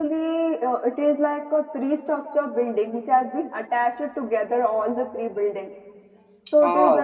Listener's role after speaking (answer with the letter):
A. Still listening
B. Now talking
A